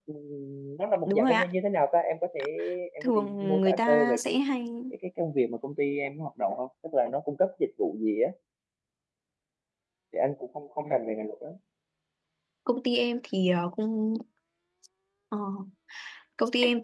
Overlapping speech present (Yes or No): Yes